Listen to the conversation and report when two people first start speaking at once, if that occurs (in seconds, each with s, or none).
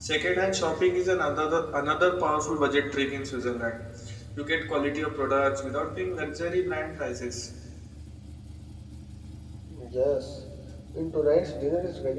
none